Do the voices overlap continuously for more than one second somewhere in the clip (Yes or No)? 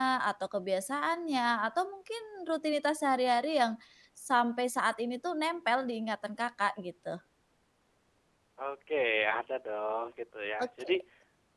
No